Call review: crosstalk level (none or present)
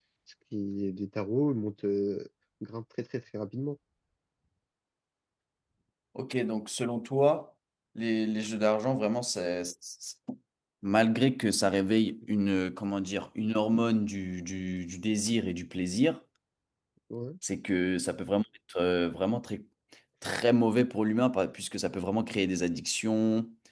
none